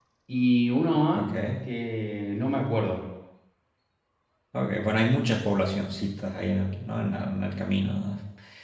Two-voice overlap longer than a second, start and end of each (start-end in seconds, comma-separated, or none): none